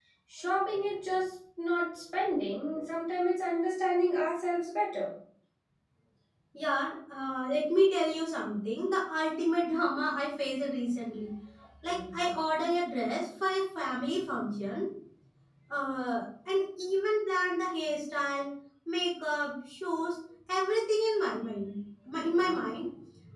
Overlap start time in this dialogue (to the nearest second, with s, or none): none